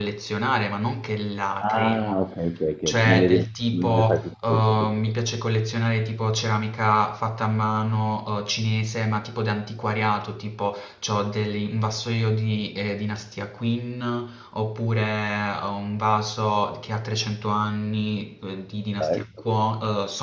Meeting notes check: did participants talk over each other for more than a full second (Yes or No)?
Yes